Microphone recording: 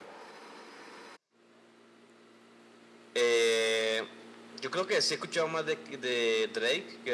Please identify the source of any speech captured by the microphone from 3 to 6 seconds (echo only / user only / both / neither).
echo only